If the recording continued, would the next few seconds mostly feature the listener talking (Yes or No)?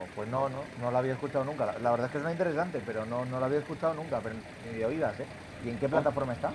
Yes